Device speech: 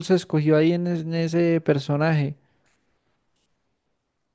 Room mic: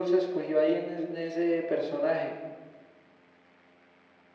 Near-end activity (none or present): none